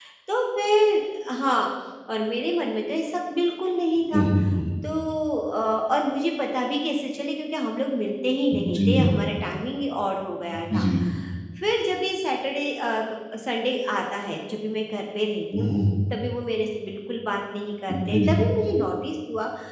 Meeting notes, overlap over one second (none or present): none